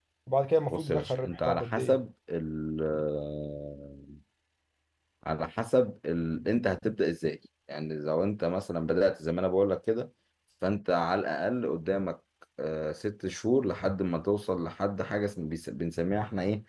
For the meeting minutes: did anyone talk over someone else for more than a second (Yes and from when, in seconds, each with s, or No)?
Yes, from 0.7 s